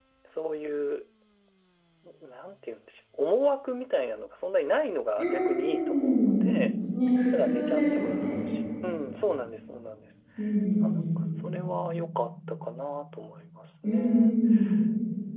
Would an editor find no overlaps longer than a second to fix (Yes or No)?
No